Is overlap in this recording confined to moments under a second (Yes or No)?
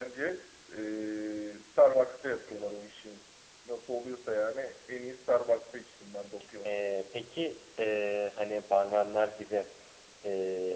Yes